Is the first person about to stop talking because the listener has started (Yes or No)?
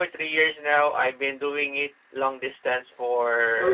No